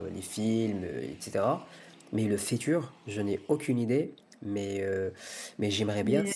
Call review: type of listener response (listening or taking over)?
listening